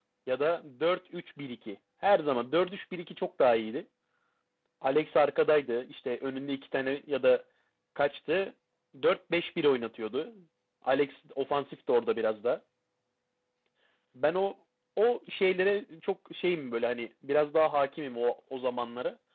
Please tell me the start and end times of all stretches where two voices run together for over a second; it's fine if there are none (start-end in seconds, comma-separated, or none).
none